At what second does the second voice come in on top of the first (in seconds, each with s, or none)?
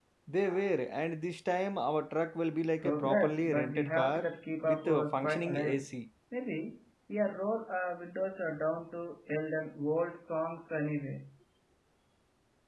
2.8 s